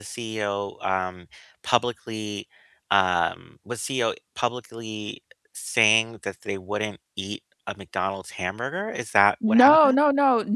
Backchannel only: No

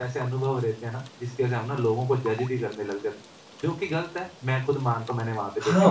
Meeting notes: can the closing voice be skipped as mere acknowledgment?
No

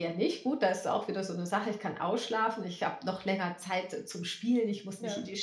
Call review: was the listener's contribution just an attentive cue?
Yes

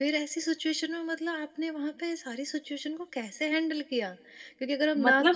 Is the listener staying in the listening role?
Yes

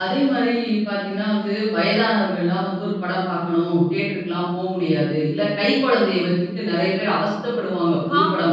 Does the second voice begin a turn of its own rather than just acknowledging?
No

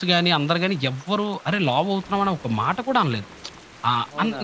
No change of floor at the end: Yes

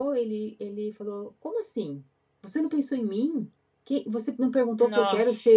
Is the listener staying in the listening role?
Yes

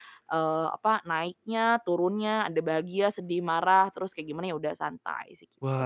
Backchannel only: No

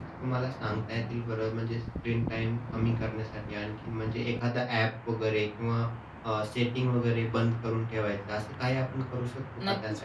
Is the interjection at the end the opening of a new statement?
Yes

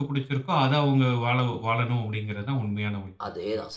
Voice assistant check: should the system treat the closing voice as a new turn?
Yes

